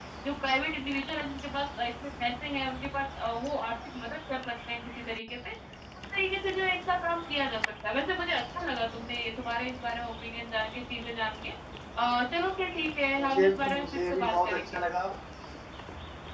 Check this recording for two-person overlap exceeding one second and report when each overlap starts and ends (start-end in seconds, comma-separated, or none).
13.2-14.8